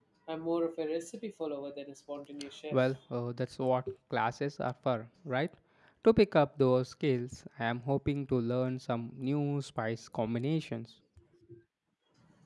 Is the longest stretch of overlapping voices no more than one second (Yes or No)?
Yes